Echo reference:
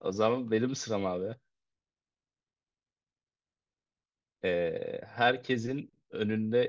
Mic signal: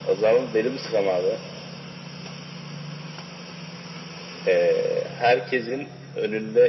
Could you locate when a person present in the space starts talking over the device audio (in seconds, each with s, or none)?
none